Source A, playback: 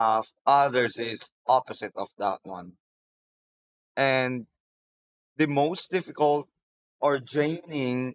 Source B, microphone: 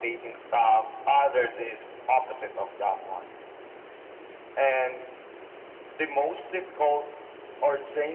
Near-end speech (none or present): none